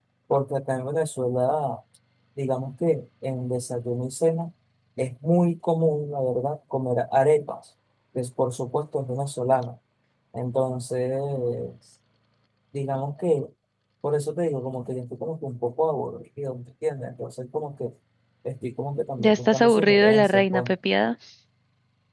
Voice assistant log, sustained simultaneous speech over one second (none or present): present